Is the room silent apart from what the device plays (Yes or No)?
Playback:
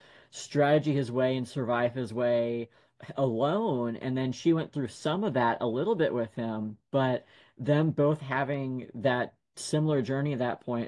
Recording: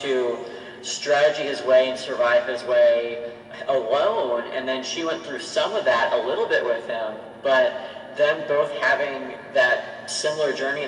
Yes